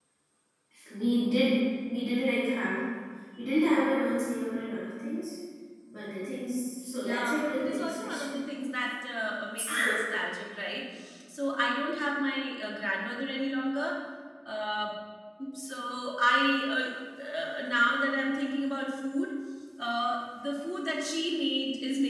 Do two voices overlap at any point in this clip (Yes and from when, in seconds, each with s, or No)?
Yes, from 7.0 s